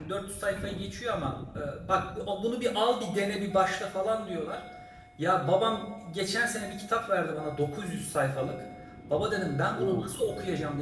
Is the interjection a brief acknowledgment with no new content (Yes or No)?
Yes